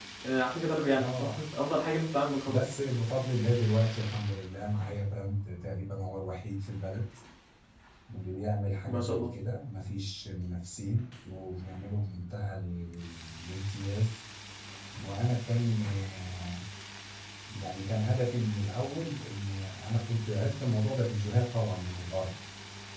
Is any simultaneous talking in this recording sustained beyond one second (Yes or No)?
No